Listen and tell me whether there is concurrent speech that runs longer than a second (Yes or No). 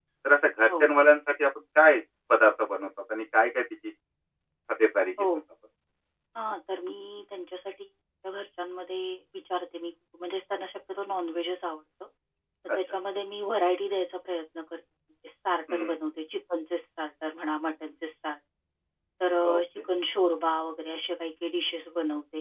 No